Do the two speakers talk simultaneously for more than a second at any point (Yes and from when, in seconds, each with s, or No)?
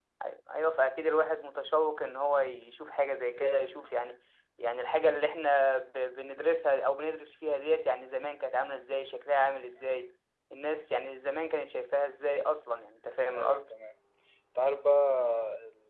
No